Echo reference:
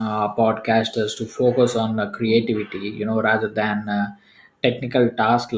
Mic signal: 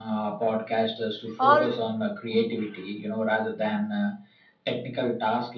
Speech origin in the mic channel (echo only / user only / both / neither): both